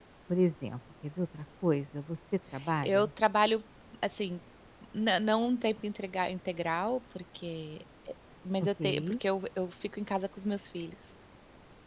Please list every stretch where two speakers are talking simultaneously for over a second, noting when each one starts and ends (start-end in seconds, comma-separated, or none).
none